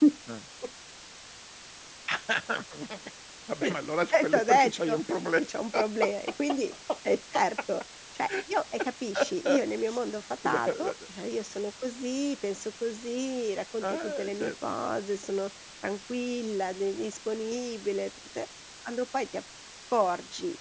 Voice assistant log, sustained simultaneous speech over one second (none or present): present